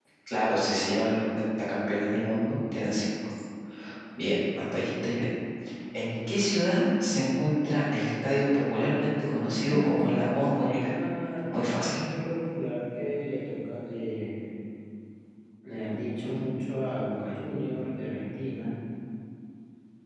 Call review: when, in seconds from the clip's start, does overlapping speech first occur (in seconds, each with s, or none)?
9.7 s